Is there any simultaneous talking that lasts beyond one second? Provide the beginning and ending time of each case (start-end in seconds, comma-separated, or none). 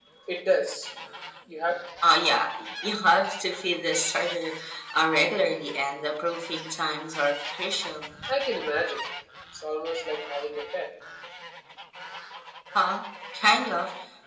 none